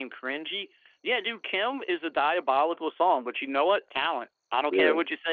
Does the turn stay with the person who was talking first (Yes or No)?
Yes